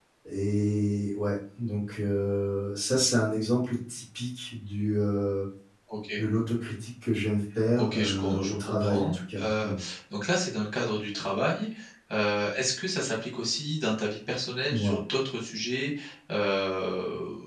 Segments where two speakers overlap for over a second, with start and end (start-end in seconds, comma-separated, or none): 7.8-9.7